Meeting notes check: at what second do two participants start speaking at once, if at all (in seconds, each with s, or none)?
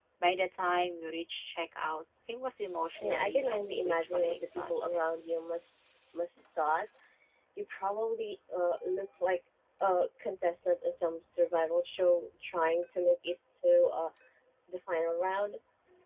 3.0 s